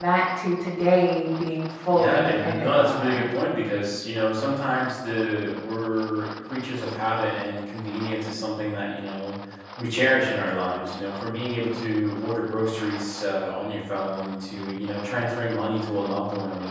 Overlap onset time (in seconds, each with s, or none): 1.9 s